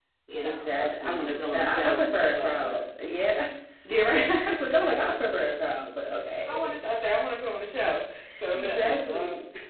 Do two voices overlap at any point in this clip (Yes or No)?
Yes